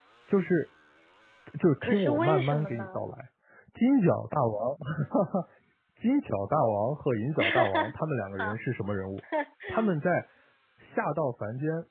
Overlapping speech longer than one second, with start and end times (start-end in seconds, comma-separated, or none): 1.8-3.1